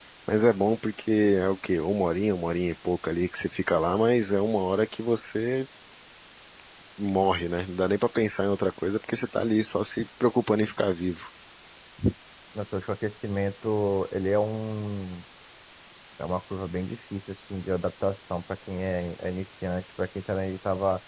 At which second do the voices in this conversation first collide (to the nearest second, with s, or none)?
none